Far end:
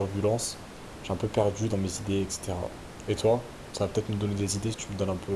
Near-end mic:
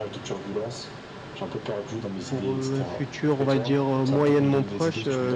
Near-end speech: present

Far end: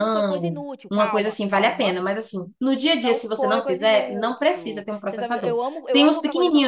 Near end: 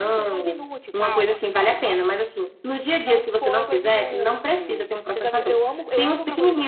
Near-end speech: none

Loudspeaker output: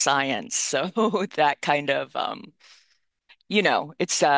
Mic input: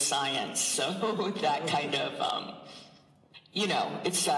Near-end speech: present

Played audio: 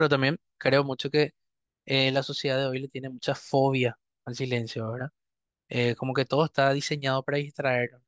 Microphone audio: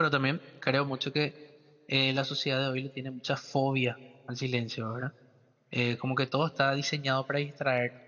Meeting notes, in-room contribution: none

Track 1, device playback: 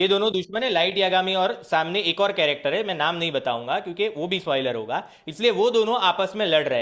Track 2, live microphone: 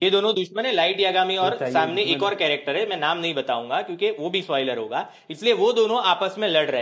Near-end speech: present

